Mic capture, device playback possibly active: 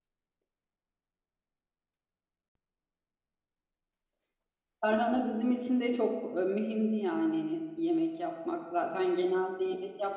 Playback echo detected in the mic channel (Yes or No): No